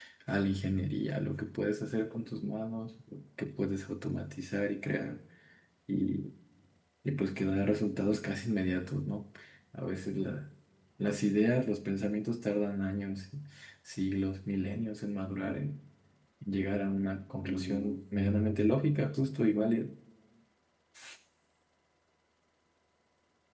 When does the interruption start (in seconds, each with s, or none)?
none